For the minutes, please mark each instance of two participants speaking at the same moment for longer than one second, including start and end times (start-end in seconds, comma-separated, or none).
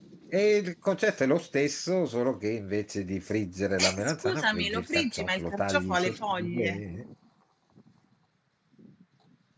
3.8-6.8